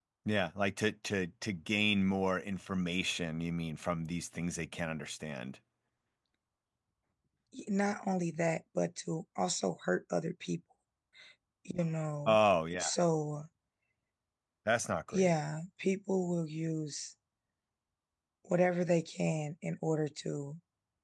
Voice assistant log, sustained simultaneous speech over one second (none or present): none